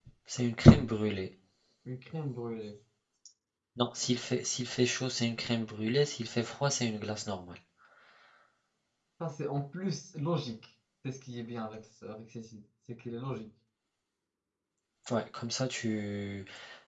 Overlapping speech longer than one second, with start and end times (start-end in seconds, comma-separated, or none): none